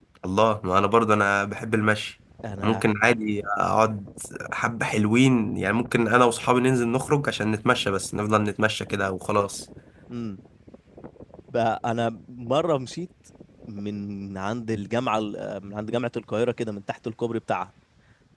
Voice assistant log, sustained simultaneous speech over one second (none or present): none